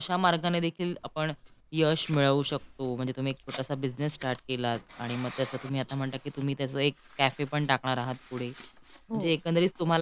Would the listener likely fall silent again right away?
Yes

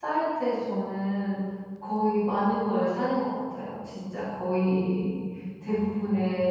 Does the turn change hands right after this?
No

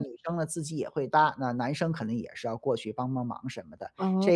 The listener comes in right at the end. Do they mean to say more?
No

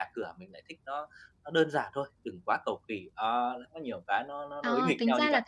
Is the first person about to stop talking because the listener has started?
Yes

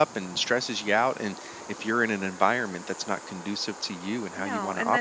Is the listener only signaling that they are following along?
No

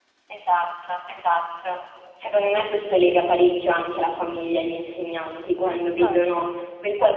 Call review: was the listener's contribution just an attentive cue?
Yes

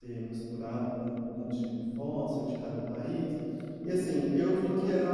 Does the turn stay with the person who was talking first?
No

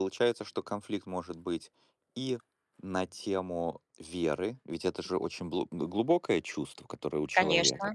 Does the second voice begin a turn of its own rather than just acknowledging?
No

